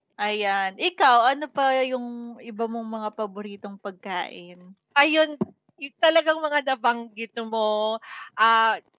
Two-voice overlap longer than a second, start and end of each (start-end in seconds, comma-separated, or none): none